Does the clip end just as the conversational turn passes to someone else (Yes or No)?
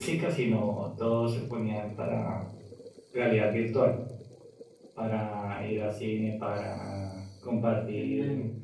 No